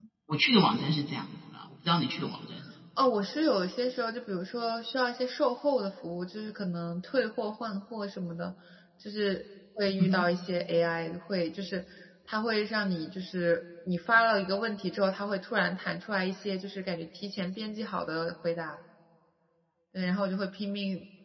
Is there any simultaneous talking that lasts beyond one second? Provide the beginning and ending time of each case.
none

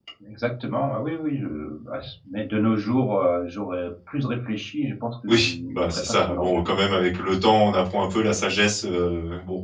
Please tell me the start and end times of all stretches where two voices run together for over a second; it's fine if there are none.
5.3-6.7

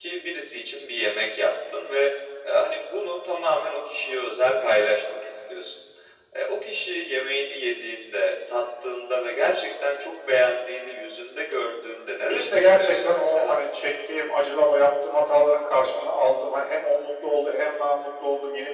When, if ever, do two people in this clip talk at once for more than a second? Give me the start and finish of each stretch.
12.3-13.6

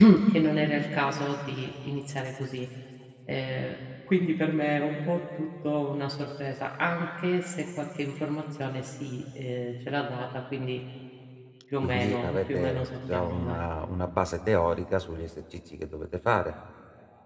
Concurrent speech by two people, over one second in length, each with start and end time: 11.8-13.6

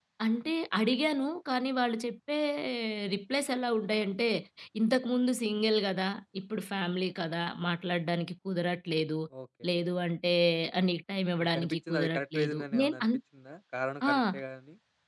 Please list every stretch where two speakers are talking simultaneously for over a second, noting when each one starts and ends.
11.4-13.0

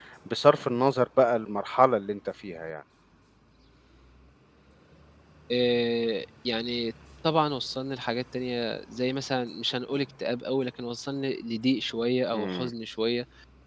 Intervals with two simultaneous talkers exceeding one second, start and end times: none

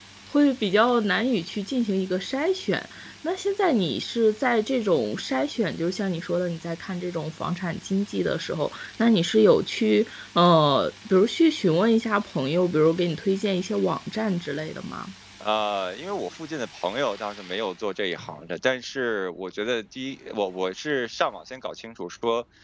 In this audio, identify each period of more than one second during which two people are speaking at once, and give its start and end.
none

